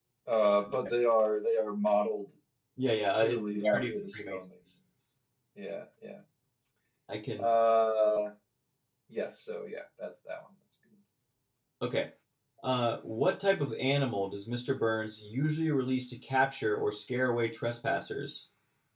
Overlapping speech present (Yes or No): Yes